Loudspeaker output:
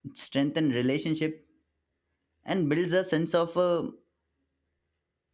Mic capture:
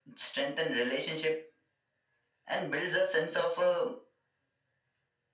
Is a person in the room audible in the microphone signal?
No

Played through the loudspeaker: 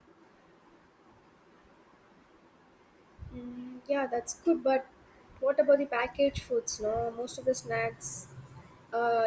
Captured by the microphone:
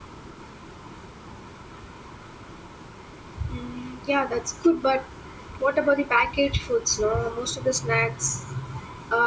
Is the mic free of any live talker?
Yes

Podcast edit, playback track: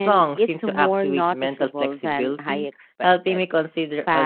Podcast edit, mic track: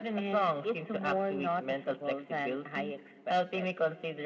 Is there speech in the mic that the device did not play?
No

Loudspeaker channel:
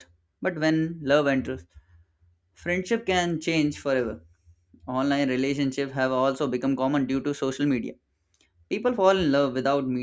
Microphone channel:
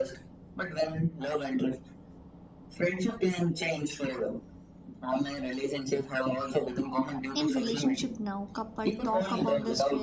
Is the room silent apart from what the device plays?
No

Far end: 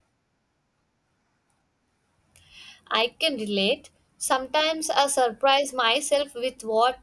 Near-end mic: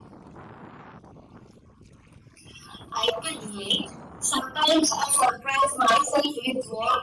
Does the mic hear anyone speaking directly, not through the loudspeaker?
No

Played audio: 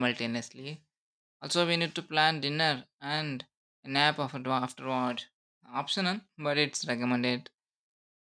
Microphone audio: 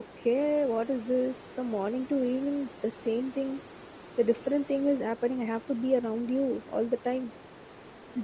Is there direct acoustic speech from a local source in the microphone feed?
Yes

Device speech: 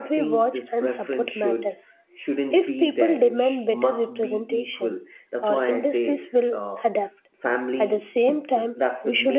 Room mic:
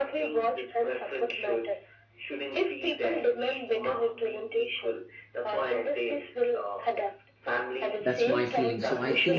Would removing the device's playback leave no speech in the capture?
No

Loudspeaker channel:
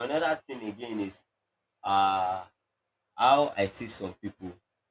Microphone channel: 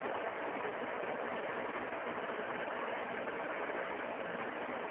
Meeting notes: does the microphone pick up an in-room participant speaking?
No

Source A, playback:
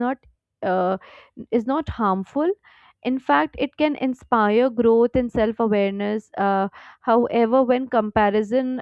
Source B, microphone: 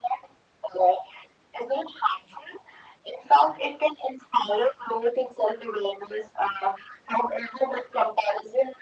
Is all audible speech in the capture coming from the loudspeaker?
Yes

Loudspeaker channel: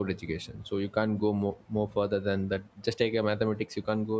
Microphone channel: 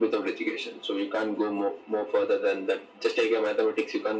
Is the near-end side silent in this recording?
Yes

